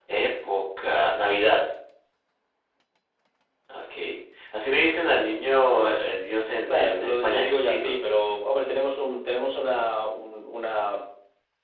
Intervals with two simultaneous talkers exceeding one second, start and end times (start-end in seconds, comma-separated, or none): 6.5-7.9